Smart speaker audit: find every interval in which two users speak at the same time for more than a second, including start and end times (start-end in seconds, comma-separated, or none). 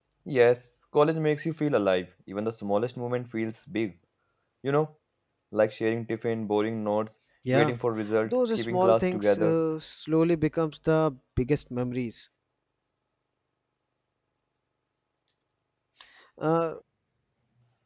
8.2-9.5